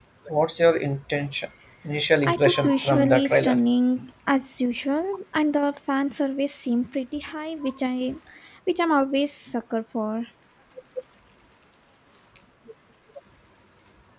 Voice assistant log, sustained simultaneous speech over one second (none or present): present